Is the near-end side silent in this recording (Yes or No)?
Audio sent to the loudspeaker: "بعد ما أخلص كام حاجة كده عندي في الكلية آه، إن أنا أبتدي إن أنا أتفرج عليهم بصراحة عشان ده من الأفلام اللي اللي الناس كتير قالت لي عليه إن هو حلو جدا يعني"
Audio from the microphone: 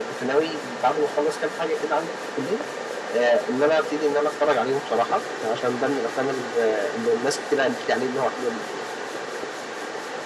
Yes